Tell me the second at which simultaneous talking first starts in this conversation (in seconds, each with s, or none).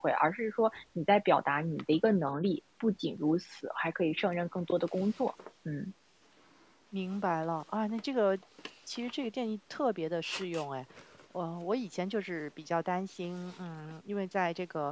none